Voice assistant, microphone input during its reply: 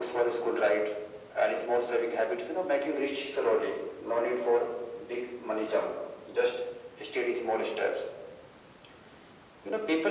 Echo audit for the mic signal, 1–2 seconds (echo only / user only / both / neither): echo only